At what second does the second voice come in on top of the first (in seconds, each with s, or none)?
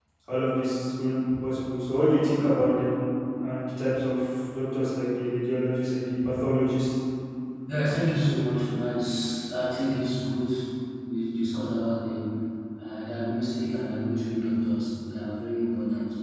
none